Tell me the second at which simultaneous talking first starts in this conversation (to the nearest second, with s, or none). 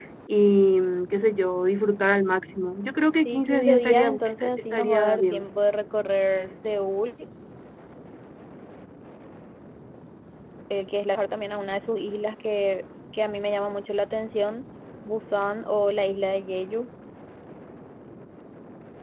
3 s